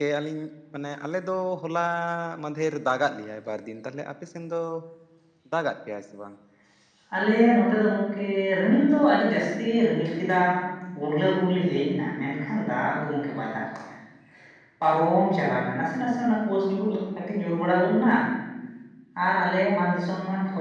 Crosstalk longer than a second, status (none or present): none